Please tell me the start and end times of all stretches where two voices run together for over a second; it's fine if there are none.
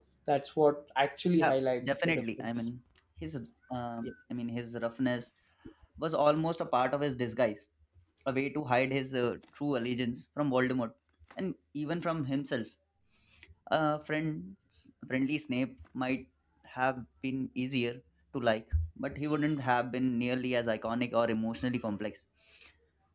1.3-2.7

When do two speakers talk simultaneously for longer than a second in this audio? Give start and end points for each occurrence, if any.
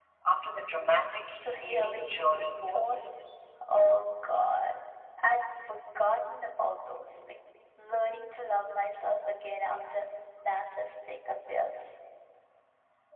1.6-3.1

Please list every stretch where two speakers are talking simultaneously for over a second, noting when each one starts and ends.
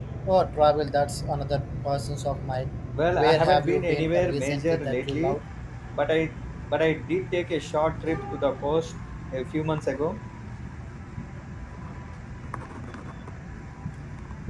3.1-5.4

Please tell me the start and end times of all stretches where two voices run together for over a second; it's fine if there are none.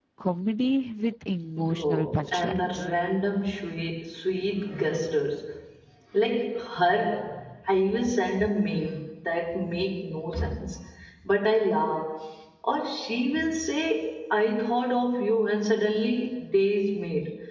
1.6-2.9

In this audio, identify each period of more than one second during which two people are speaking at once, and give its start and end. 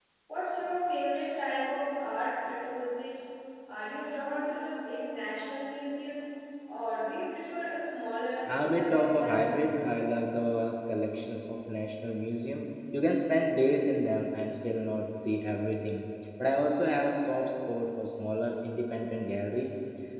8.5-9.8

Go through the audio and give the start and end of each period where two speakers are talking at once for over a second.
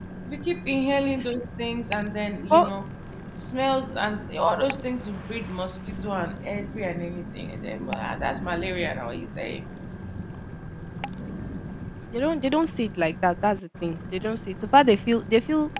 none

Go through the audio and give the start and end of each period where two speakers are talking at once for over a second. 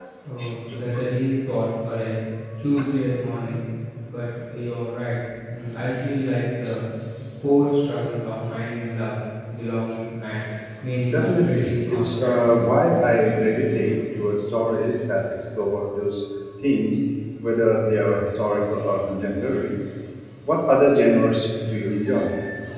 11.1-12.4

